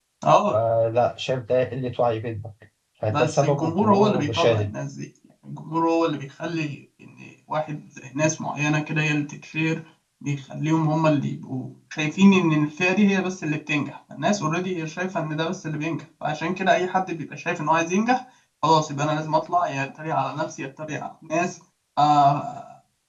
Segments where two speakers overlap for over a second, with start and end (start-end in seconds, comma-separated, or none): 3.1-4.7